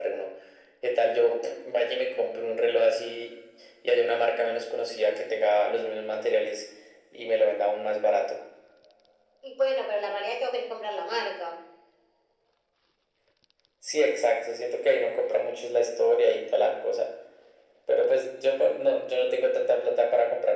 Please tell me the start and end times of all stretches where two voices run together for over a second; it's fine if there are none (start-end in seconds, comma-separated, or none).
none